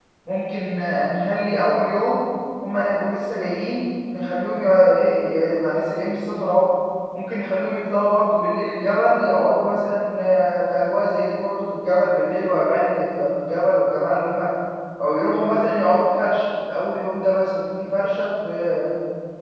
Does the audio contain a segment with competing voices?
No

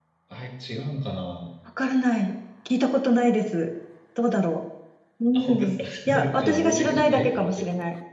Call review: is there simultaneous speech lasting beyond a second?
Yes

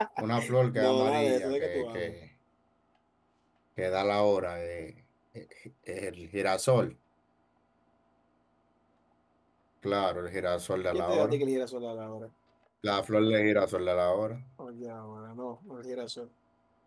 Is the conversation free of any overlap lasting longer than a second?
No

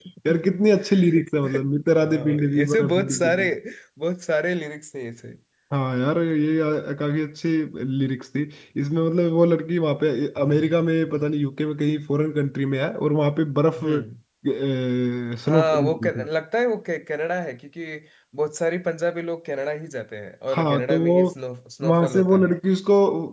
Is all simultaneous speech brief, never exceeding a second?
No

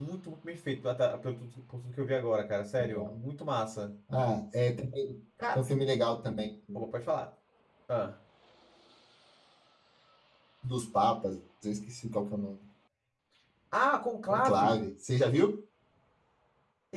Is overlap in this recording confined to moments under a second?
Yes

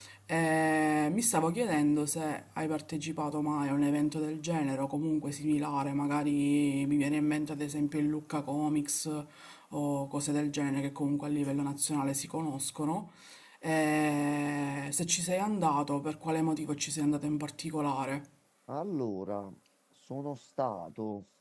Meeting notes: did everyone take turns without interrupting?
Yes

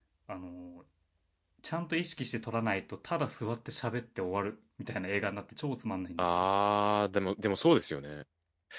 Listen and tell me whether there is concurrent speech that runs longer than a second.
No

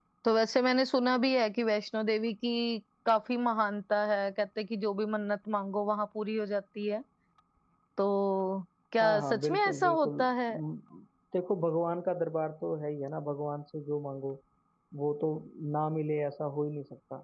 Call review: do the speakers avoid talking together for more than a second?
No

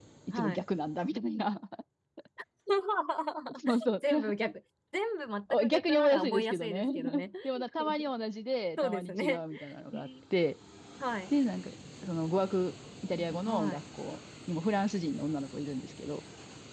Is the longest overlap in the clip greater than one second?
Yes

